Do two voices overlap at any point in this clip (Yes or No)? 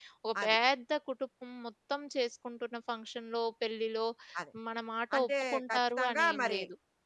Yes